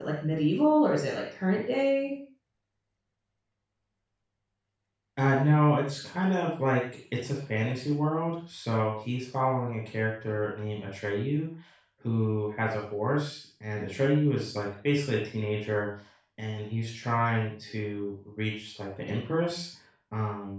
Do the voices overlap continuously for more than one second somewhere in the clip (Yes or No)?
No